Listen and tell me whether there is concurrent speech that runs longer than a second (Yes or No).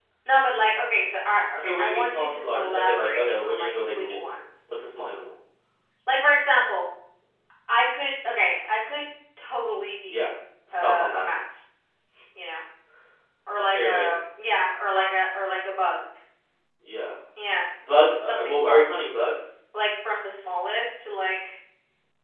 Yes